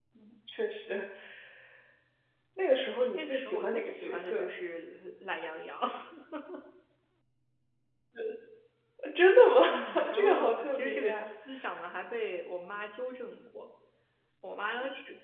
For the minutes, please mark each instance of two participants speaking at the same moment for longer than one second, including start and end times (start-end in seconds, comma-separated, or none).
3.1-4.5, 9.7-11.3